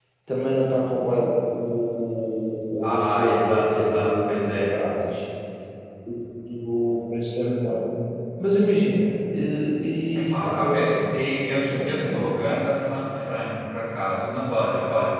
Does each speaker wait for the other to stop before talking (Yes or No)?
No